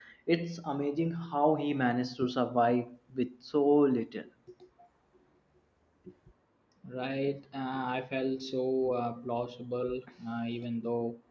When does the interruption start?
none

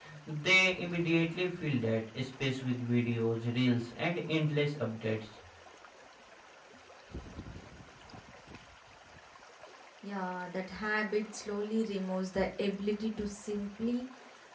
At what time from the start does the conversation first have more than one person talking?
none

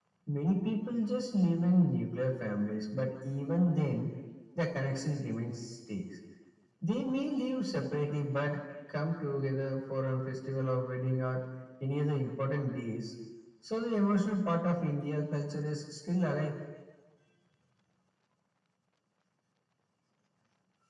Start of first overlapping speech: none

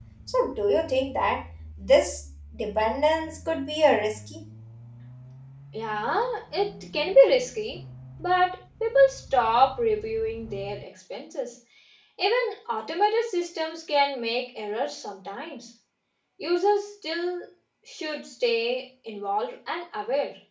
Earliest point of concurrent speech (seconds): none

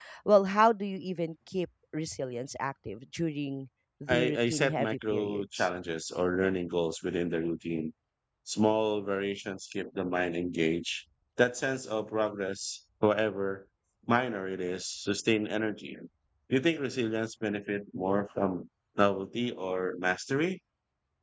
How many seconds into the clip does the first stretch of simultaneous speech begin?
4.1 s

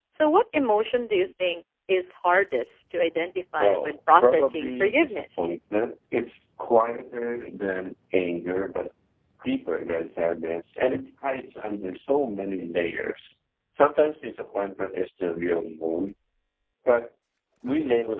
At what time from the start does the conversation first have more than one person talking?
3.6 s

